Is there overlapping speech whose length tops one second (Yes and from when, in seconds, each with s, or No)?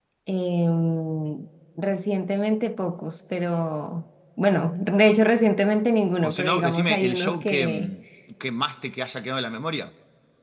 Yes, from 6.2 s